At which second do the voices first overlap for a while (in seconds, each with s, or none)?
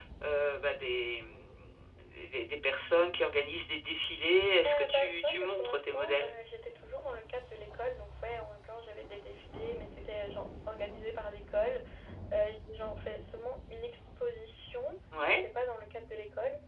4.7 s